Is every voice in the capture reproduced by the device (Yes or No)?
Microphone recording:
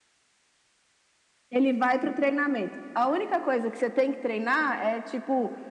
Yes